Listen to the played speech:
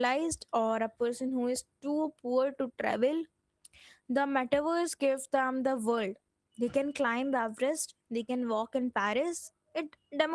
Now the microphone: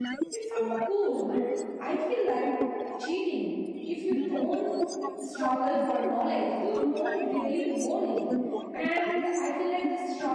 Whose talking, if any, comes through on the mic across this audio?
both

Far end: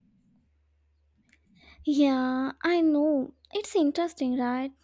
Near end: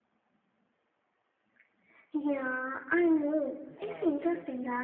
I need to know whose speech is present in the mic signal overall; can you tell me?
both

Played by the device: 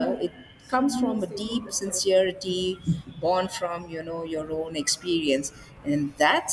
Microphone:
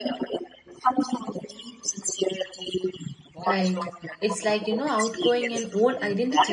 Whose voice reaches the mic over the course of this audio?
both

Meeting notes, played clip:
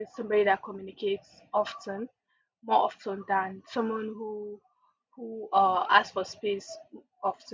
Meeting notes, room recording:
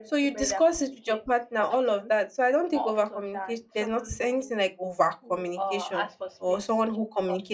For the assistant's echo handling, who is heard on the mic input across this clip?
both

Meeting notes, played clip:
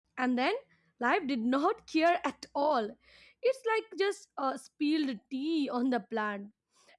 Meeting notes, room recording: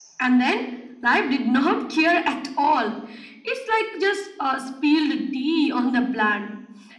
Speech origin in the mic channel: echo only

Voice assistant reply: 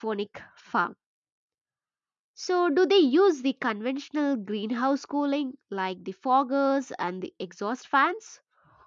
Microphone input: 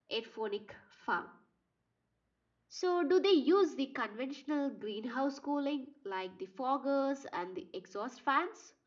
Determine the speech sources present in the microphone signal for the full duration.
echo only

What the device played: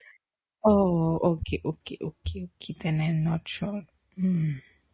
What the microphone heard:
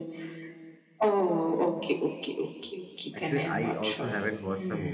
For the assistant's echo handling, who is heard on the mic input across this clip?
both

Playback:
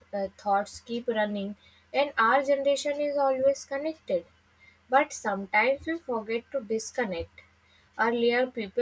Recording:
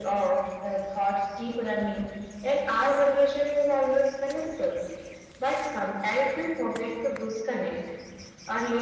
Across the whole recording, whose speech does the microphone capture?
echo only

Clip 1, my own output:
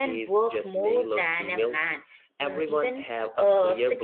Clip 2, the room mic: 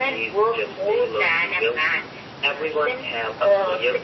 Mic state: echo only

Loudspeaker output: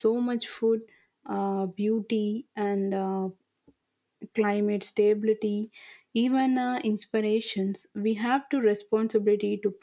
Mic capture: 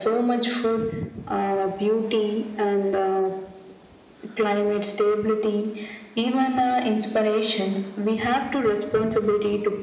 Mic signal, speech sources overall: echo only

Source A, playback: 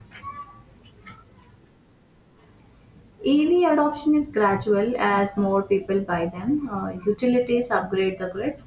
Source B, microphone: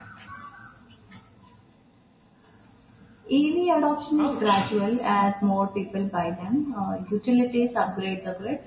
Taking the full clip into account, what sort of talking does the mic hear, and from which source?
both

